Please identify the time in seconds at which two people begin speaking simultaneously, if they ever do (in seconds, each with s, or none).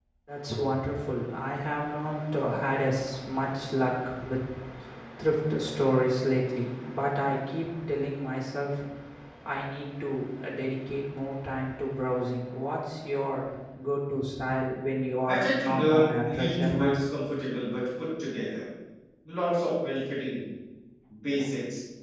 15.3 s